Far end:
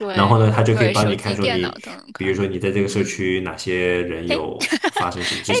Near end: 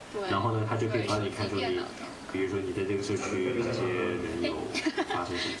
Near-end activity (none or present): present